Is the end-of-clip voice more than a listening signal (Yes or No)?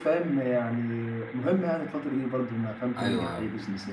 Yes